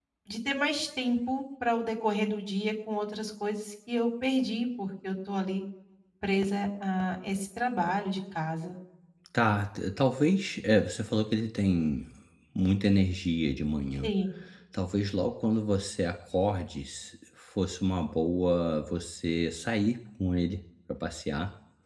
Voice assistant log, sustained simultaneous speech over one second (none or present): none